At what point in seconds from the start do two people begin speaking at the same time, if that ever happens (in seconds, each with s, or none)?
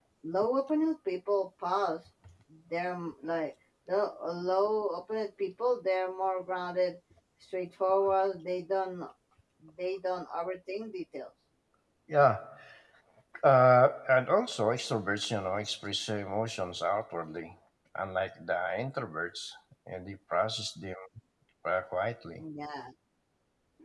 none